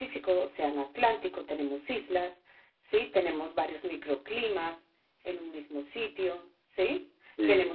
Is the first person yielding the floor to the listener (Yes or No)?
No